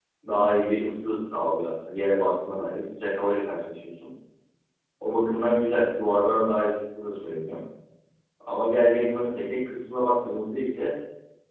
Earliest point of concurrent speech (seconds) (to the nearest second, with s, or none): none